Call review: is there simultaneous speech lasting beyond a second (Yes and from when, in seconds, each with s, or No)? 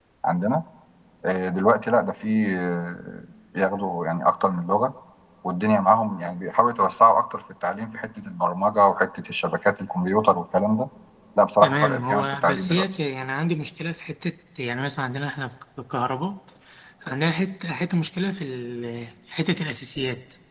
Yes, from 11.6 s